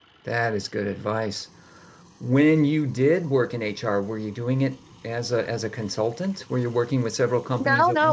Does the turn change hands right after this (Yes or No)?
Yes